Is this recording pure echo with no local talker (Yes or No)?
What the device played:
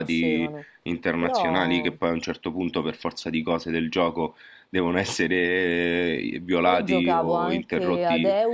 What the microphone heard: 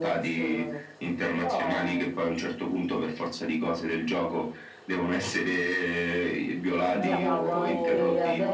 No